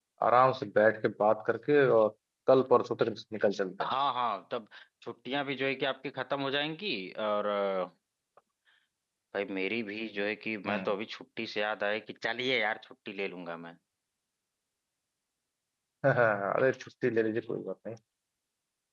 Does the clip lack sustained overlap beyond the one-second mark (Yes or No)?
Yes